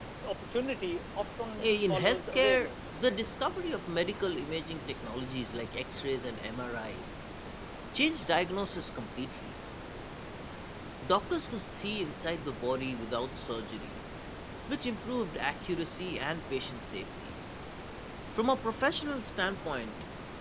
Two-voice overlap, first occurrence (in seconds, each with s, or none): 1.6 s